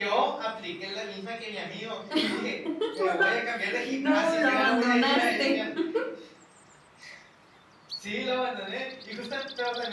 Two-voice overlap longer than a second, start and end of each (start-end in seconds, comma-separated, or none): 3.8-5.4